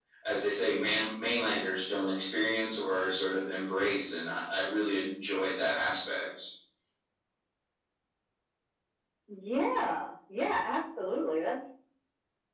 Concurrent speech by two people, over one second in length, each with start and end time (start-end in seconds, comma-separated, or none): none